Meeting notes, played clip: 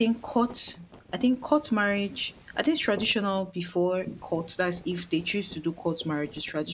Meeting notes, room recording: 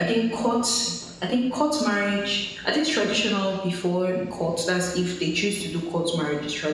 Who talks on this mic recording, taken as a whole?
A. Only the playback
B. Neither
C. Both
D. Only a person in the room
A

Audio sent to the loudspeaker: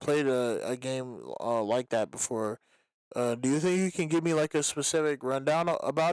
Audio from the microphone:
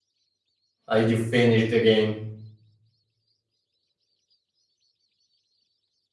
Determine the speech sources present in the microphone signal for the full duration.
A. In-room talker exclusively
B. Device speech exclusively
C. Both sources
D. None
A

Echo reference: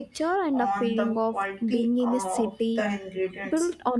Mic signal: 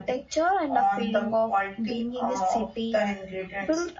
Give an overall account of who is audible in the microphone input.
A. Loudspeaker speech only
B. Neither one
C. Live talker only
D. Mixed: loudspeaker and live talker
A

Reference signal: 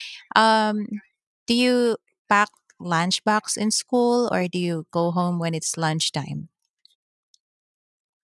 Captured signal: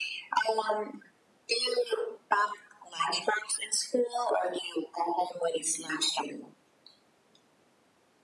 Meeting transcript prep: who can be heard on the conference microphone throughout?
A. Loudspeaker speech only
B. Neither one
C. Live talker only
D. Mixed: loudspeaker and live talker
A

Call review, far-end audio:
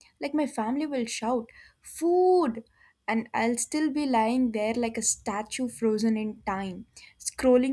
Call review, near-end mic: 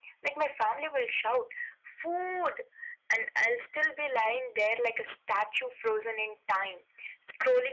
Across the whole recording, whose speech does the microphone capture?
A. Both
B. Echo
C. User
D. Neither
B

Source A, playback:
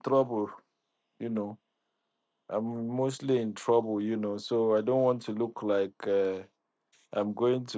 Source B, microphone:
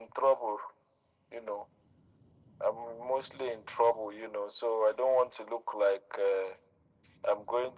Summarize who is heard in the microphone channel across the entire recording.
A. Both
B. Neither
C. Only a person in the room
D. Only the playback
D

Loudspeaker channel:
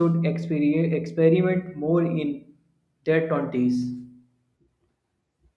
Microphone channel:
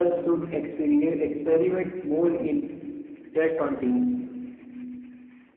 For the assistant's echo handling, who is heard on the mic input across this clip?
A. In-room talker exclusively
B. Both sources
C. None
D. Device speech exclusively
D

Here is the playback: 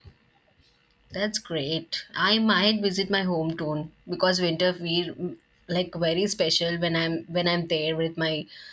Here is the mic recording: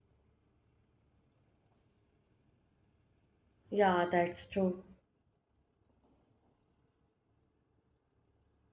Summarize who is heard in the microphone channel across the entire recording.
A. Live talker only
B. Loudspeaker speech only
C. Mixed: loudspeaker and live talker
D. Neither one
A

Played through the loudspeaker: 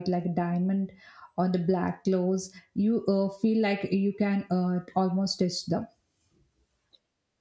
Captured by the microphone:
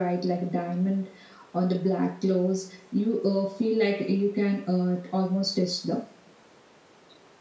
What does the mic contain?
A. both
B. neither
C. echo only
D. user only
C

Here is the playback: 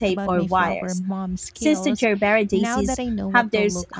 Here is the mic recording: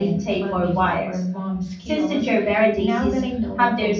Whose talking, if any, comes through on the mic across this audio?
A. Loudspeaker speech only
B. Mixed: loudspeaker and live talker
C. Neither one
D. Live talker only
A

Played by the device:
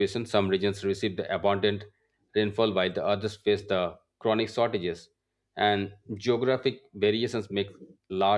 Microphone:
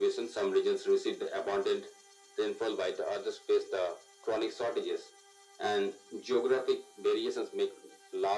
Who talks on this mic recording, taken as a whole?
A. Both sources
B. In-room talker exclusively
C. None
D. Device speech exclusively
D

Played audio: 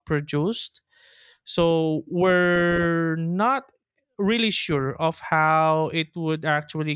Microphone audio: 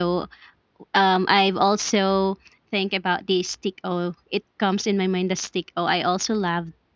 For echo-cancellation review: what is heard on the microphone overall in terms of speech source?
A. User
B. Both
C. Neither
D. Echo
A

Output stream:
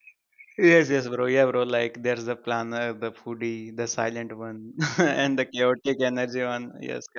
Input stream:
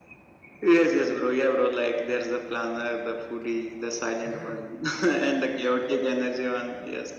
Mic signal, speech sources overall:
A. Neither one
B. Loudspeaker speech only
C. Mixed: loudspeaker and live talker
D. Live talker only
C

